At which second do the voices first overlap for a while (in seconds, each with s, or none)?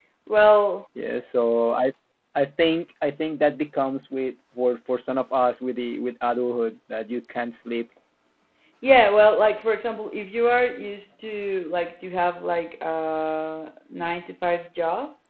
none